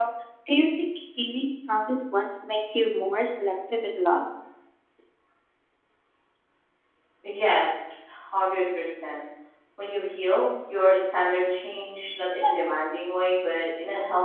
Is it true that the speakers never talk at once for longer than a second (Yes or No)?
Yes